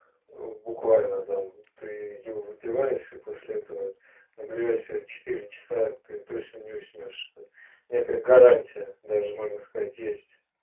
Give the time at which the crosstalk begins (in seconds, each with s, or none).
none